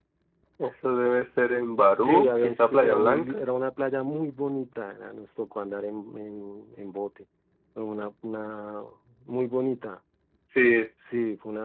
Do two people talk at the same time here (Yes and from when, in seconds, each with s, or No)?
Yes, from 2.0 s